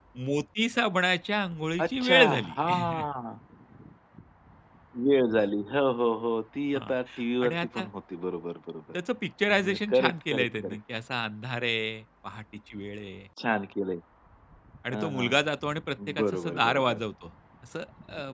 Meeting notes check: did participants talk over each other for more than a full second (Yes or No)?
Yes